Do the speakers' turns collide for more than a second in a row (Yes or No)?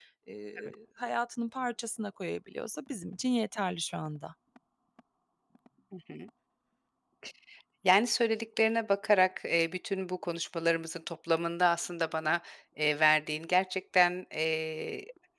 No